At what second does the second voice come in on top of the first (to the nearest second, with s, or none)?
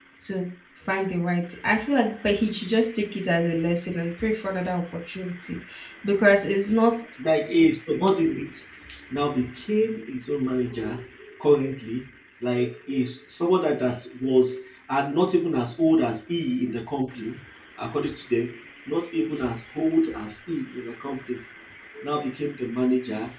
none